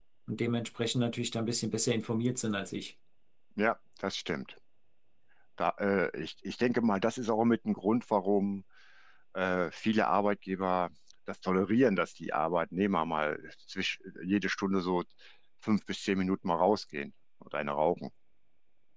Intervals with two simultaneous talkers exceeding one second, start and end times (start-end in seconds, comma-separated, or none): none